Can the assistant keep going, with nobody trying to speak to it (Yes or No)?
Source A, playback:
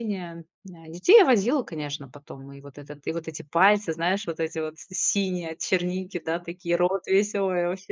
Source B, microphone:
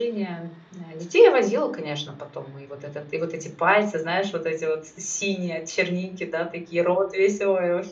Yes